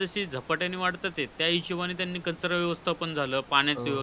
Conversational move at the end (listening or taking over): listening